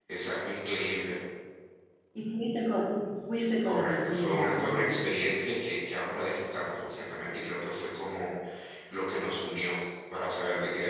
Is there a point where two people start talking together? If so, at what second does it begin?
3.6 s

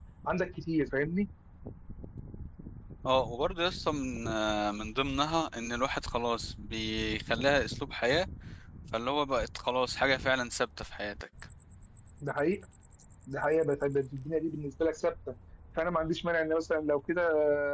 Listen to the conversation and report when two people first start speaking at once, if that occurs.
none

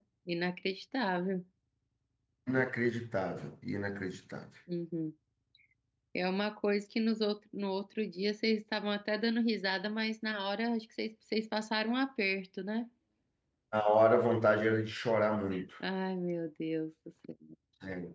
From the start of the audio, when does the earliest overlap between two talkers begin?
none

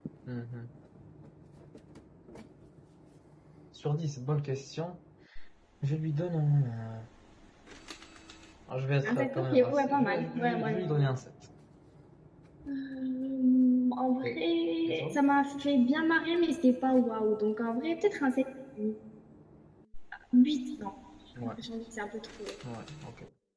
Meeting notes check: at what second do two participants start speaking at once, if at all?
9.1 s

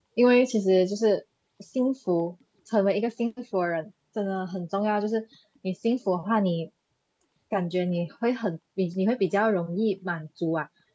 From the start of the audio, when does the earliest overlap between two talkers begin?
none

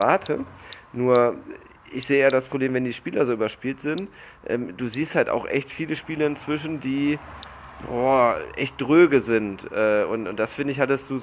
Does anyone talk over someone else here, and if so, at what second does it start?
none

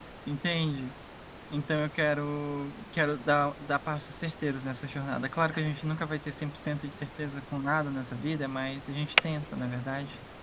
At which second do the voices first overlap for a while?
none

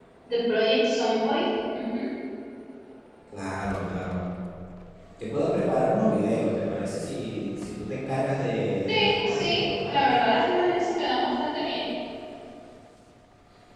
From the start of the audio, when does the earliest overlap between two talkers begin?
8.9 s

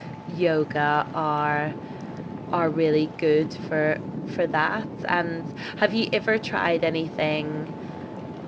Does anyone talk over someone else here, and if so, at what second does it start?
none

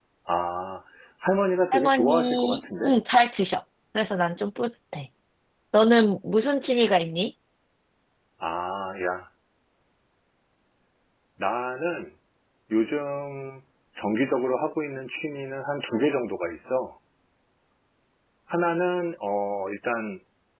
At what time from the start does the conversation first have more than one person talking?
1.7 s

